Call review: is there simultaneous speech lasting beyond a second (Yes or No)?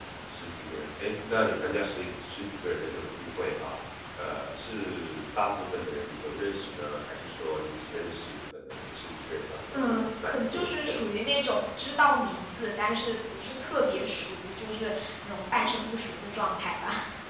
Yes